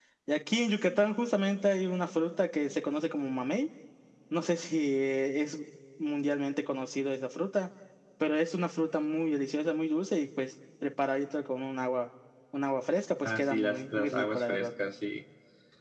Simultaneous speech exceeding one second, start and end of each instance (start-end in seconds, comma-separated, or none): 13.2-14.7